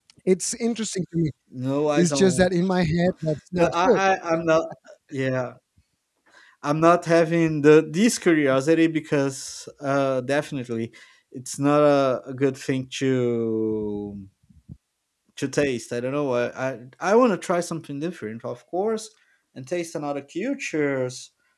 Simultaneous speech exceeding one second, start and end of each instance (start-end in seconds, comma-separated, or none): none